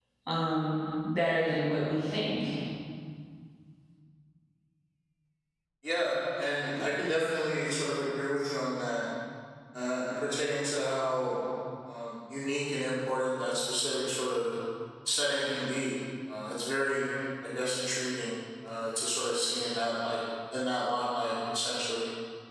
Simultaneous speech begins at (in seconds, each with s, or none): none